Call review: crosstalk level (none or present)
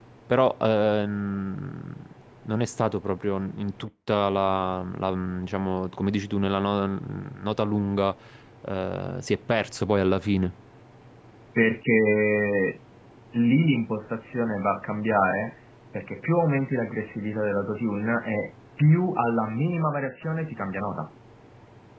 none